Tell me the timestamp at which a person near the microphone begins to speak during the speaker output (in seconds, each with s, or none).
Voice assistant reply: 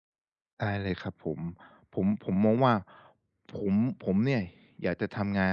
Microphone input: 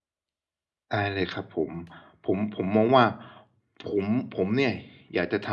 none